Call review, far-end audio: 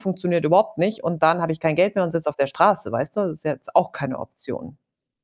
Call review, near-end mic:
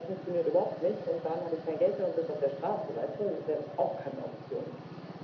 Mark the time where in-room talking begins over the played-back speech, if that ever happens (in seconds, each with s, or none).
none